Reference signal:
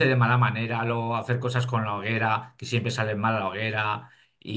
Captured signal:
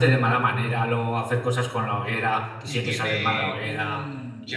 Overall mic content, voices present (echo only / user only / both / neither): both